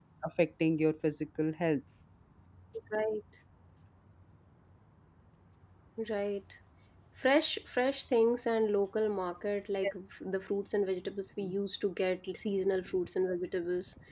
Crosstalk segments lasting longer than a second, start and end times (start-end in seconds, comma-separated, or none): none